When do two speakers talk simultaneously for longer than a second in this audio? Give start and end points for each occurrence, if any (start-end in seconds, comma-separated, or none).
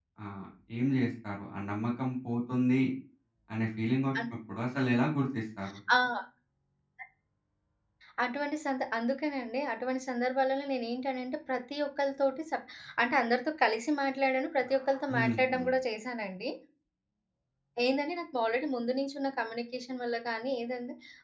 none